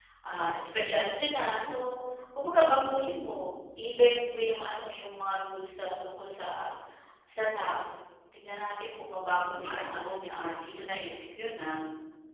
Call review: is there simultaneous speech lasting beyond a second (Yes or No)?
Yes